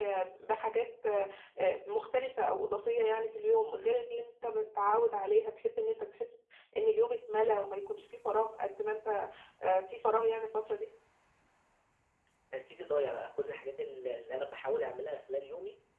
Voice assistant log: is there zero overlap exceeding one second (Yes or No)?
Yes